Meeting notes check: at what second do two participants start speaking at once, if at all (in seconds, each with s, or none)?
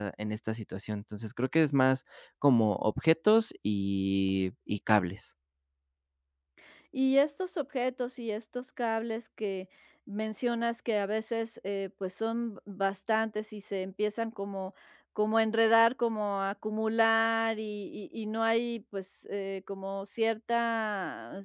none